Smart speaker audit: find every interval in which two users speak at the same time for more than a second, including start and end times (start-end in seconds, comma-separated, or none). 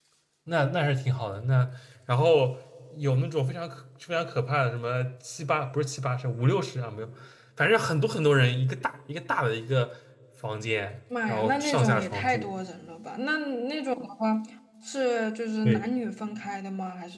11.3-12.5